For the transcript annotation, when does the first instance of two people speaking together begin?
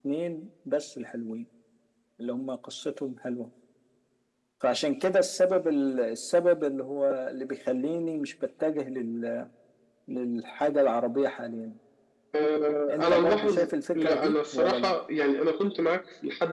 12.9 s

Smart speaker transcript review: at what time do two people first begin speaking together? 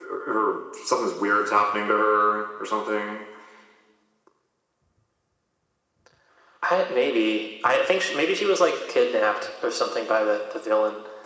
none

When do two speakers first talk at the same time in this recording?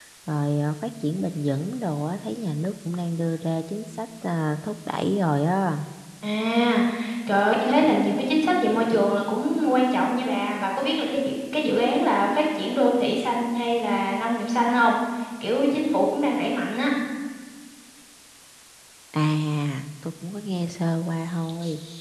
none

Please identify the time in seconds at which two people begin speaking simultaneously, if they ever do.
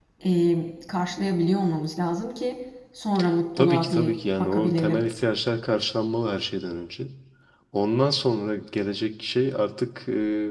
3.6 s

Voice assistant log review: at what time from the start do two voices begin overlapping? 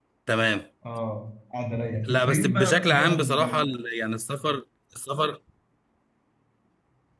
2.1 s

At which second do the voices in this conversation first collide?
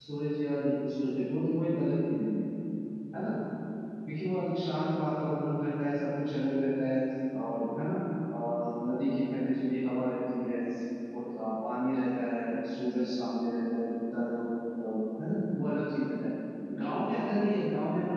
none

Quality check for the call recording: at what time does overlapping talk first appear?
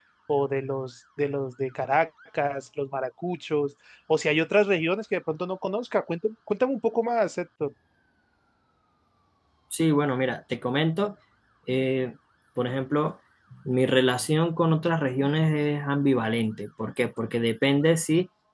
none

